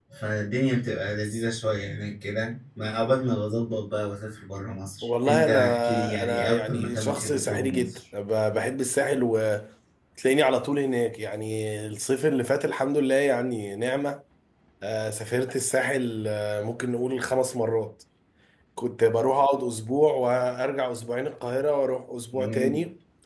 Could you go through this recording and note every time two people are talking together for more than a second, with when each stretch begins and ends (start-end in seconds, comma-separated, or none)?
5.0-8.0